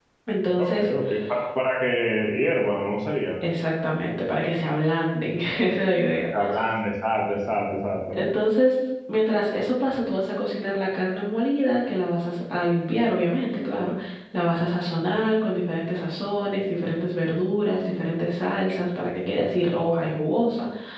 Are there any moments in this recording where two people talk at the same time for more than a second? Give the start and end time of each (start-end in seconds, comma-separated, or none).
none